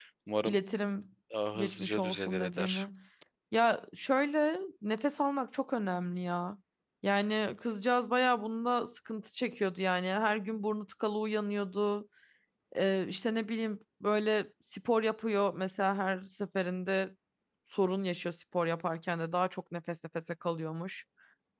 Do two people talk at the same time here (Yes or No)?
Yes